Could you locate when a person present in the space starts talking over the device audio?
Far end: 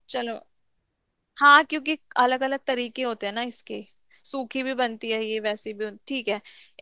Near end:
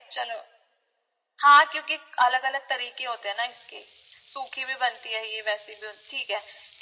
none

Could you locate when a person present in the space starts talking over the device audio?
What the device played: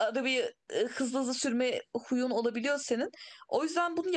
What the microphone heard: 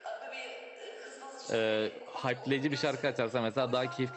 1 s

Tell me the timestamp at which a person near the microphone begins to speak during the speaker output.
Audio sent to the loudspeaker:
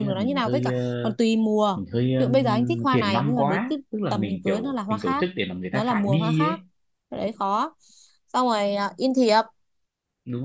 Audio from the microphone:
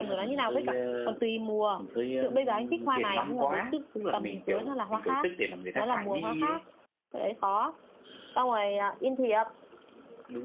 none

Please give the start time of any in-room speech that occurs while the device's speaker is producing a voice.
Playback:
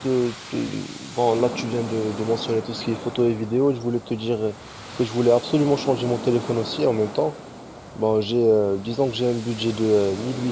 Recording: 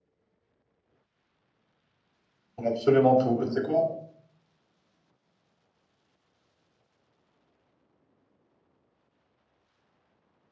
3 s

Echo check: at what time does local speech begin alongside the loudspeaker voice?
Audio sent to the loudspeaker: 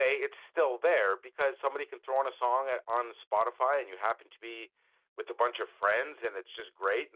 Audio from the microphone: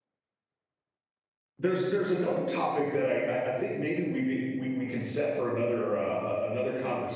2 s

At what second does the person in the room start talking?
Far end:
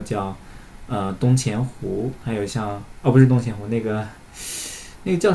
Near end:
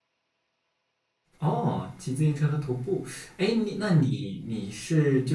1 s

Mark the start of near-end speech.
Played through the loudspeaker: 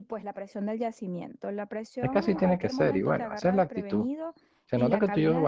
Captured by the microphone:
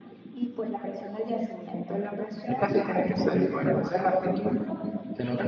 none

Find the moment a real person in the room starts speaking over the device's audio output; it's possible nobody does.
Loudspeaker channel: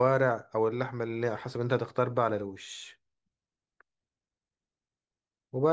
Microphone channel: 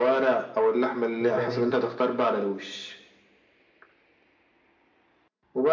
1 s

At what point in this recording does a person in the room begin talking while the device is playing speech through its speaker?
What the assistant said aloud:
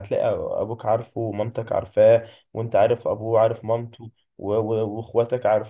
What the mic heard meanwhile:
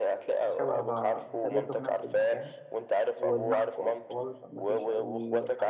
0 s

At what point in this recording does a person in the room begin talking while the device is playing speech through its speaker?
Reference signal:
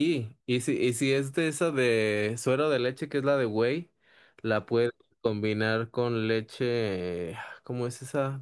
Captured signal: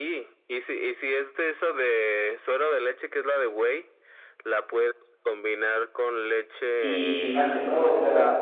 7 s

